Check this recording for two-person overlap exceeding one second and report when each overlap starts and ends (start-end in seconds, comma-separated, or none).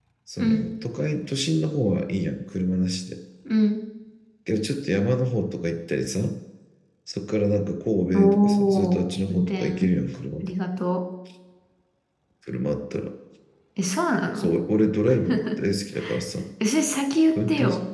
8.1-9.9